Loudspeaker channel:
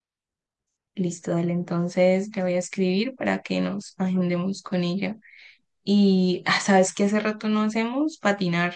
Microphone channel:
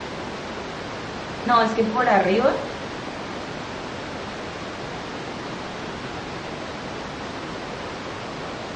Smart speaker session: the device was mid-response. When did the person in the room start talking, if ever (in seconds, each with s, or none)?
1.4 s